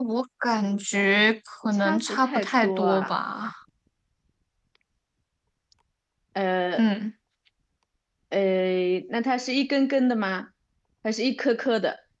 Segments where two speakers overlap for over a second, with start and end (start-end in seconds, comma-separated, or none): 1.7-3.1